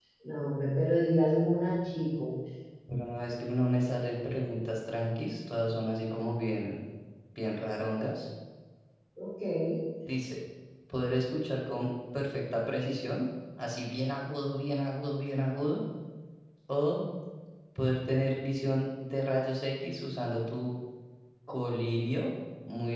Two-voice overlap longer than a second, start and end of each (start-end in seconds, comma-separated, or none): none